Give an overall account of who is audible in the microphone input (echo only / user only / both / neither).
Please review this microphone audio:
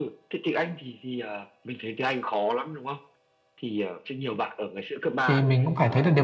both